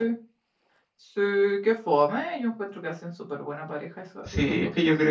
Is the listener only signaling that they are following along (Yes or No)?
No